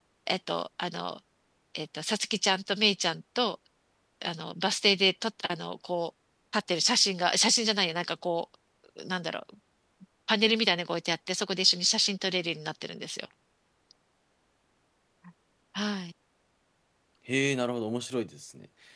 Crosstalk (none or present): none